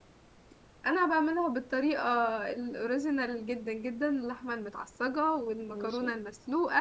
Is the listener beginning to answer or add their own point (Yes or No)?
No